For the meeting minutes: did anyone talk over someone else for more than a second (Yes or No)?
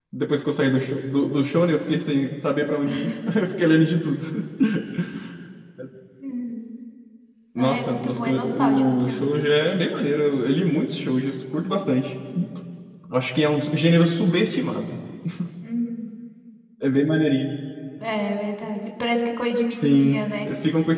Yes